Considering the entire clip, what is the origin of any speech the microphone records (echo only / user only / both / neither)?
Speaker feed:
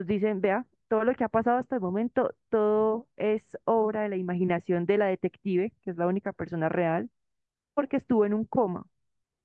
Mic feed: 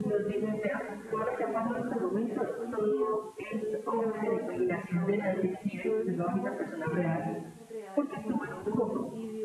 both